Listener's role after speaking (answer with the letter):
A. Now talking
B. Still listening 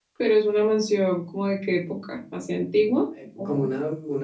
A